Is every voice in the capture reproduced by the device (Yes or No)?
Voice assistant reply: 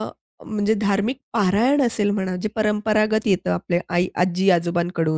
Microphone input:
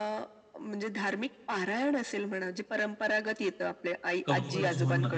No